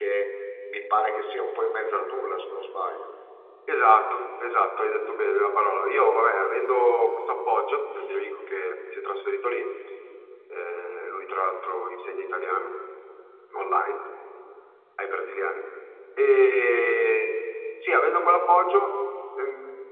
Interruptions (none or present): none